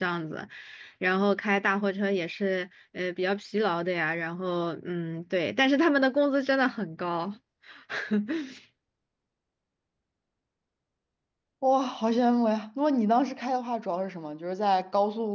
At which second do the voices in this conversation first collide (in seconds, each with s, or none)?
none